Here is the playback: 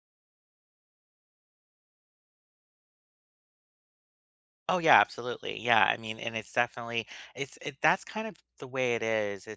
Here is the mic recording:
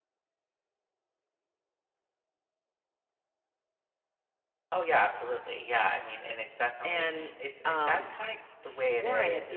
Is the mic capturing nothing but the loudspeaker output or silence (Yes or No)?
No